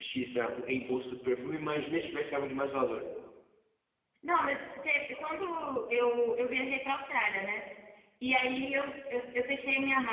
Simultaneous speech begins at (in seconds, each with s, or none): none